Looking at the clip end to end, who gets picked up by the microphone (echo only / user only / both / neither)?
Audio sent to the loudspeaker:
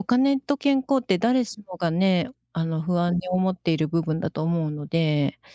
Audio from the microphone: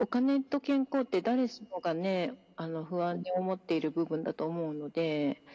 echo only